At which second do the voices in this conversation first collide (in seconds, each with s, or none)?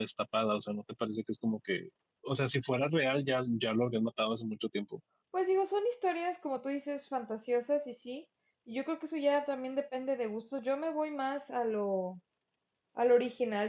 none